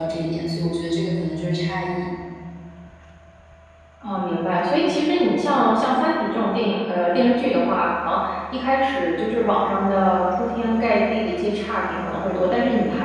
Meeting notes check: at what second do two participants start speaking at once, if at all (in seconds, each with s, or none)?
none